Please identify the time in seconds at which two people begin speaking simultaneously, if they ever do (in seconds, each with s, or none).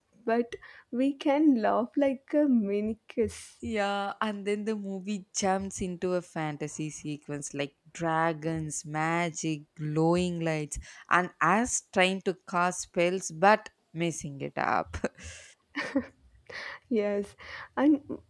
none